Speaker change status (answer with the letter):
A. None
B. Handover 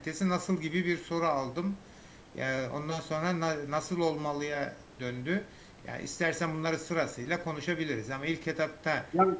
B